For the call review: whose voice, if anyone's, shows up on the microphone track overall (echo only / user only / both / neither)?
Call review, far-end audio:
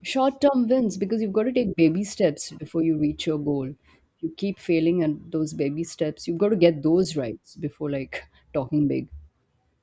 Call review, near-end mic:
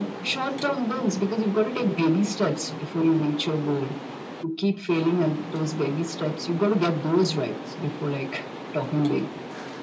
echo only